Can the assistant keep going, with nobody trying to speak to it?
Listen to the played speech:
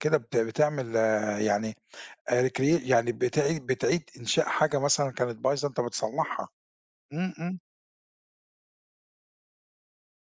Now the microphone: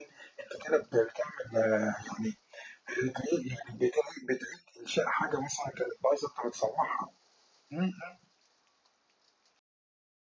Yes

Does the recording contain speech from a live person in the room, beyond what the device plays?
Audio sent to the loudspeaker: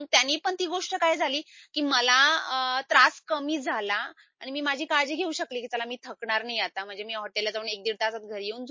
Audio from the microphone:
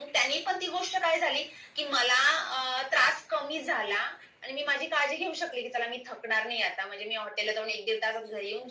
No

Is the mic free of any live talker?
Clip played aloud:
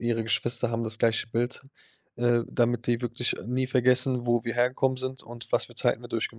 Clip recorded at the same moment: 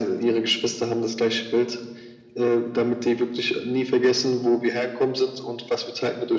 Yes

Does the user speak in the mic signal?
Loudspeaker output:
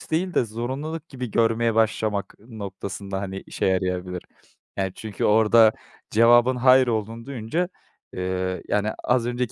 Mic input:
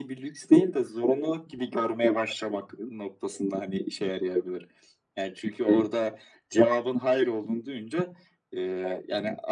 No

